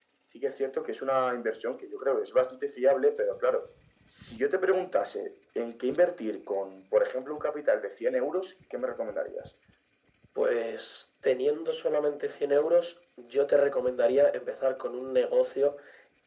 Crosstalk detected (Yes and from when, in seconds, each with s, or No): No